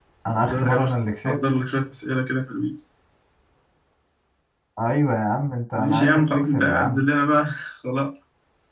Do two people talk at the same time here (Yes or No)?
Yes